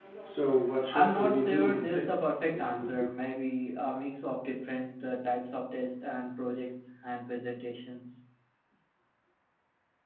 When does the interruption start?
1 s

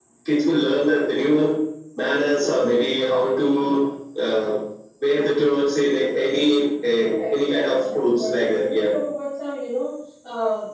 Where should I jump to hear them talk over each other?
7 s

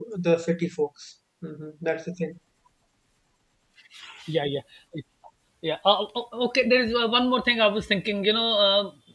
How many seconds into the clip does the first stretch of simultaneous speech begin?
none

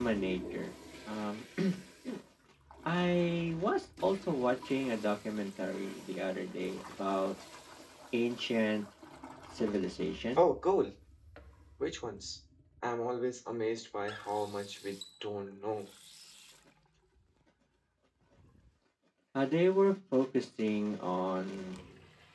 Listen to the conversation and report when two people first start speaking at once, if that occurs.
none

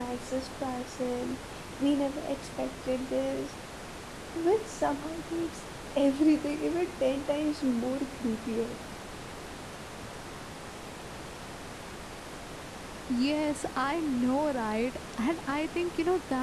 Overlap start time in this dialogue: none

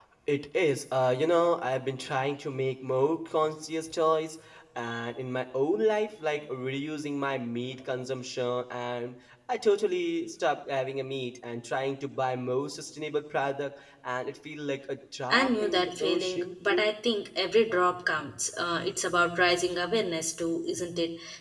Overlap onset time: 15 s

